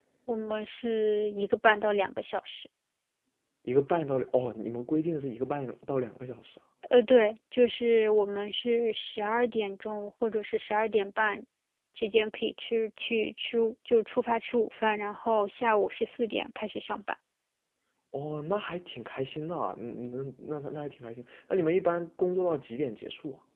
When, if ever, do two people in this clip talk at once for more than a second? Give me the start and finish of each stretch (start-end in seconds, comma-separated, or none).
none